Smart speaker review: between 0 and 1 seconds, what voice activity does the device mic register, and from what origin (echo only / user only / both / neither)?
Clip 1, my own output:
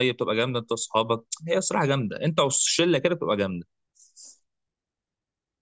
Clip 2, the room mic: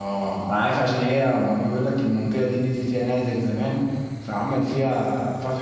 user only